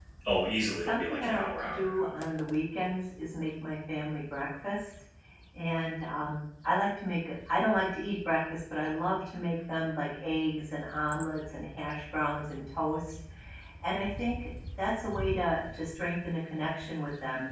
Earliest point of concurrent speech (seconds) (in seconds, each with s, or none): 0.8 s